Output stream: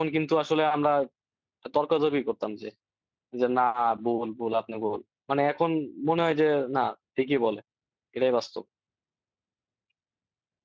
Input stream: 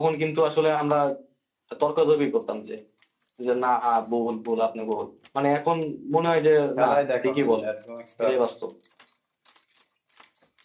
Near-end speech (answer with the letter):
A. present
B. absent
A